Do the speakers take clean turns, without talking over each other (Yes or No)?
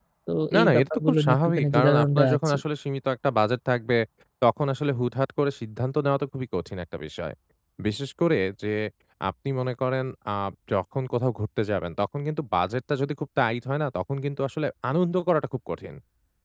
No